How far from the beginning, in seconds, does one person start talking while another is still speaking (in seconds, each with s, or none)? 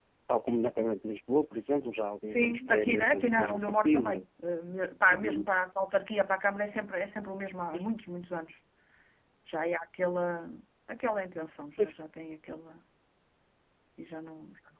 2.3 s